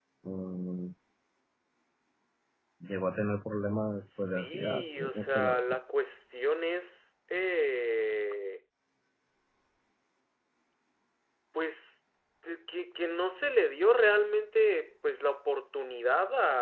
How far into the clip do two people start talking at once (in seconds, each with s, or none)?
4.1 s